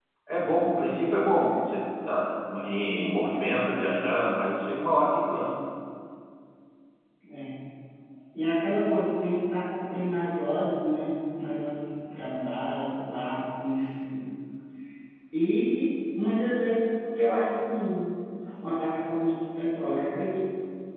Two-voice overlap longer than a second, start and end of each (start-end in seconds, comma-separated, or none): none